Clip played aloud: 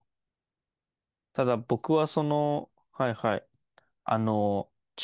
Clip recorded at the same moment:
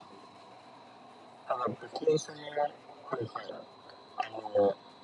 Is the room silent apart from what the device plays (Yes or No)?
Yes